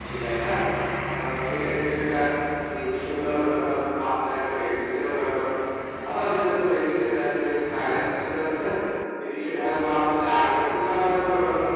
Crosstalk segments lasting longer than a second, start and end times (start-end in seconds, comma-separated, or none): none